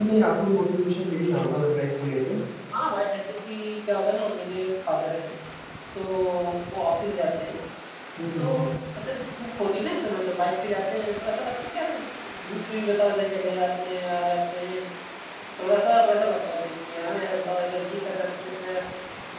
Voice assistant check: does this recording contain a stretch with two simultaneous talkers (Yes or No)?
No